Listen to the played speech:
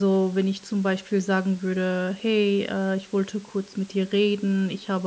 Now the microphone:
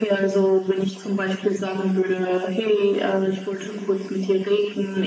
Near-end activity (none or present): none